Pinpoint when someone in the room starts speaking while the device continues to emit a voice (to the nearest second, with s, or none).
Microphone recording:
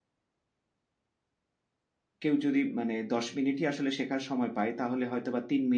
2 s